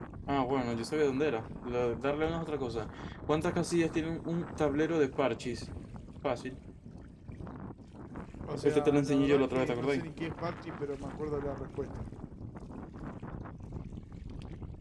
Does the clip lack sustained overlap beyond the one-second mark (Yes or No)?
No